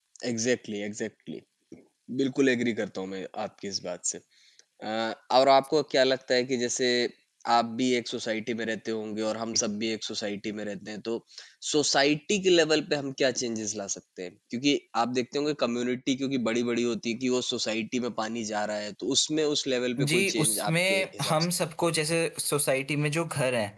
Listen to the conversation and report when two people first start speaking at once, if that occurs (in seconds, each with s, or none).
20.0 s